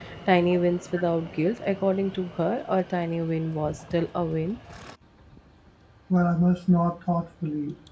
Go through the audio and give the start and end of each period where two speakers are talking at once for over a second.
none

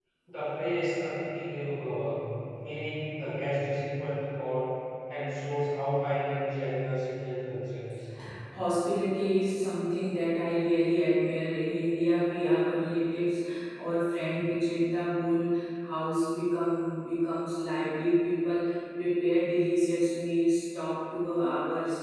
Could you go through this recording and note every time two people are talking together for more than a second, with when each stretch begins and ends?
none

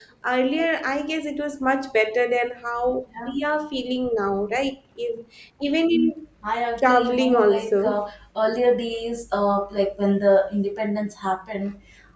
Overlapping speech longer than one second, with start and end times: 6.8-8.0

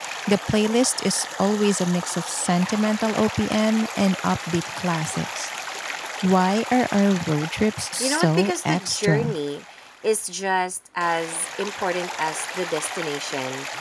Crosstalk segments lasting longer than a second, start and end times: 8.0-9.4

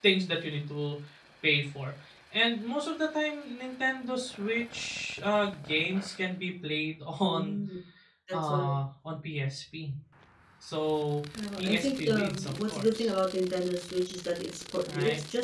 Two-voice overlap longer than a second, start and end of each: 11.6-13.1

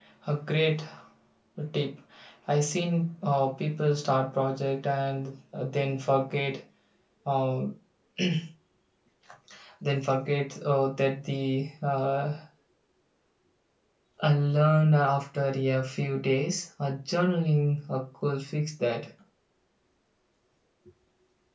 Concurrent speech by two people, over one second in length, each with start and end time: none

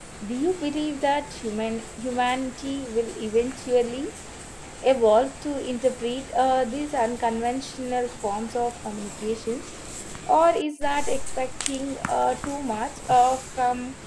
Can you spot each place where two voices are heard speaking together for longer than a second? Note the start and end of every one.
none

